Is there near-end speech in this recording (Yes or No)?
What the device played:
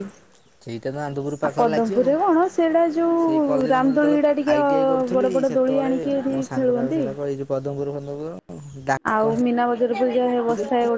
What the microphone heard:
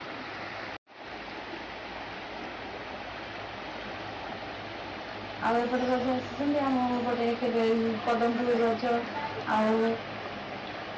Yes